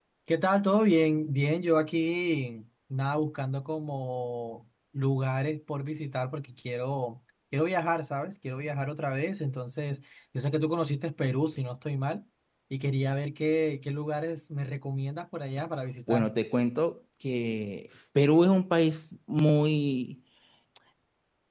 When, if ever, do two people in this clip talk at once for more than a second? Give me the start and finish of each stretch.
none

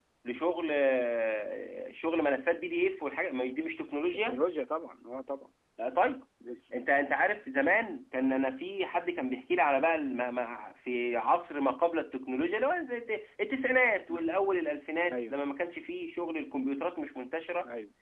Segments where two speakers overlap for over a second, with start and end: none

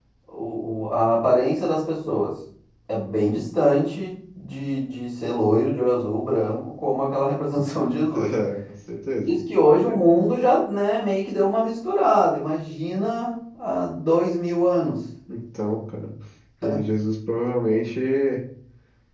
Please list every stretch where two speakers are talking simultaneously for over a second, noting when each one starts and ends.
none

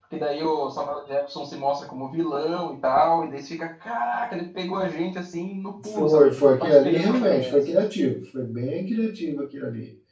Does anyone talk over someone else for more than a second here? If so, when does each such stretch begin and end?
6.0-7.6

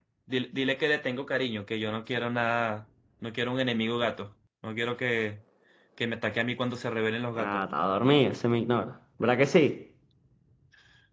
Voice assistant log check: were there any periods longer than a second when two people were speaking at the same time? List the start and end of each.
none

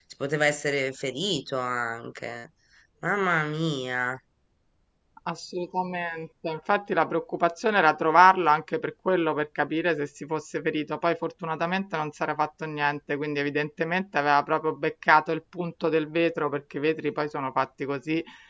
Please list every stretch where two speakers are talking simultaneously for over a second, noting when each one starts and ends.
none

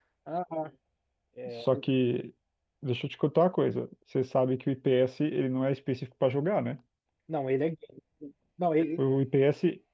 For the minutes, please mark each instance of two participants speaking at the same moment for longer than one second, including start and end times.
none

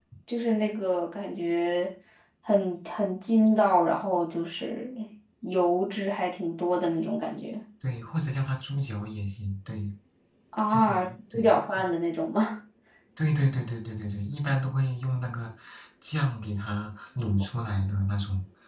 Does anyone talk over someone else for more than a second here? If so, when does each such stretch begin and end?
10.7-11.9

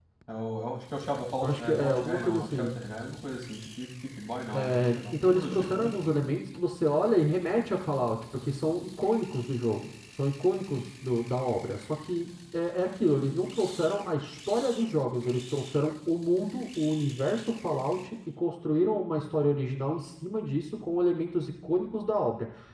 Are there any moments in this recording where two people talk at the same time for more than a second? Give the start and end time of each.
1.4-2.8, 4.8-6.1

